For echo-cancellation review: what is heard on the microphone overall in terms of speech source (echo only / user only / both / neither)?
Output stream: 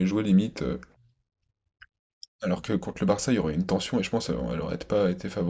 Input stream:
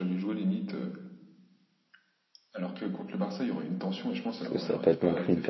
both